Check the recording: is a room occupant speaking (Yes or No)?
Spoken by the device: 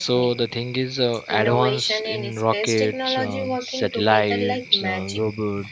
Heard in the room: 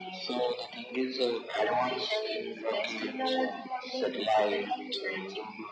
No